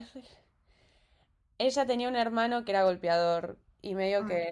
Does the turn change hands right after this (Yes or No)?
No